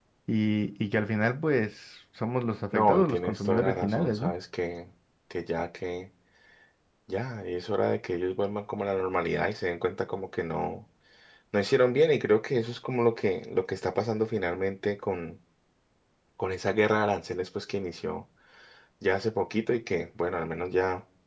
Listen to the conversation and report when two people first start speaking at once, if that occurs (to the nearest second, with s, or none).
3 s